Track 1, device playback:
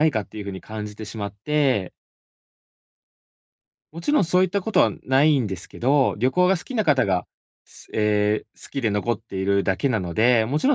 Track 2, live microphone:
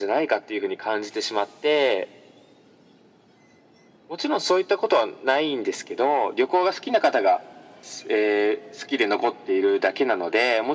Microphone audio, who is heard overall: echo only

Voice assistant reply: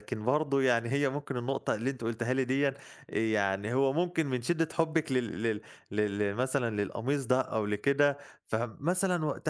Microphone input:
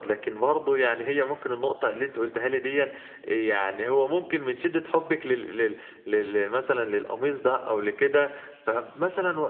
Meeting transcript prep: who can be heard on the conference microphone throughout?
echo only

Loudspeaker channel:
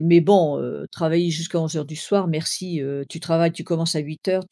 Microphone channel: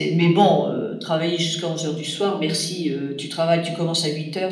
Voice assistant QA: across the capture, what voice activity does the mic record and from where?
echo only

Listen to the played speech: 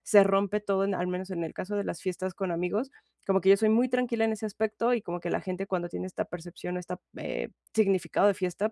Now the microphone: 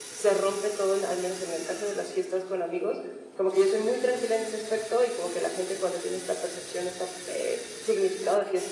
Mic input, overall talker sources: echo only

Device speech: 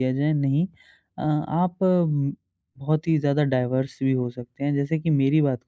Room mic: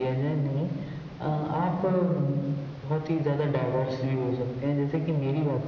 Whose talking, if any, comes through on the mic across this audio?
echo only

